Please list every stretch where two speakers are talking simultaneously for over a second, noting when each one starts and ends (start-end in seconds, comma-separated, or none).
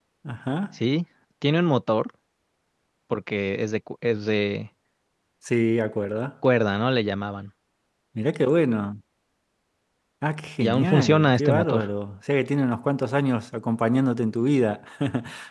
10.6-11.8